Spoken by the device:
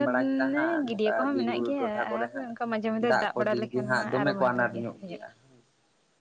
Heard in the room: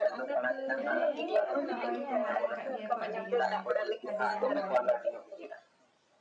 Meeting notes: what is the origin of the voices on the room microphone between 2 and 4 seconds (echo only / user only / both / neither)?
both